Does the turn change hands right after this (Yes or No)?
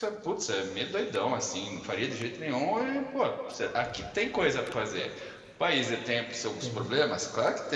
No